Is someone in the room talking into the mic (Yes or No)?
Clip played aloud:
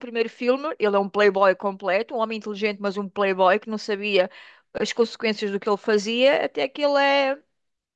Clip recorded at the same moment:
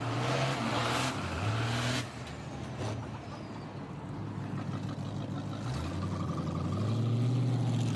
No